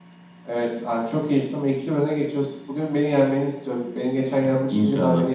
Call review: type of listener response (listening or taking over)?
listening